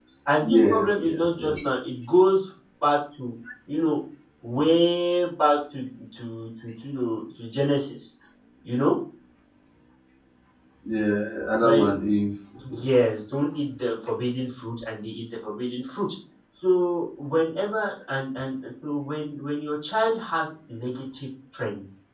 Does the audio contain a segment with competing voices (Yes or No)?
Yes